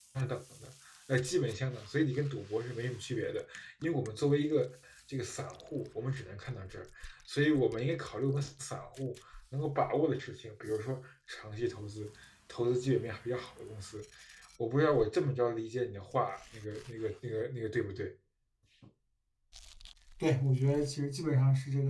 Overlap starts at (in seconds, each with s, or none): none